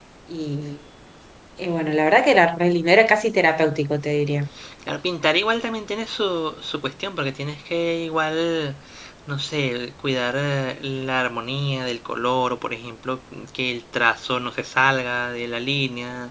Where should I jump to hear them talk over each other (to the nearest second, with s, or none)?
none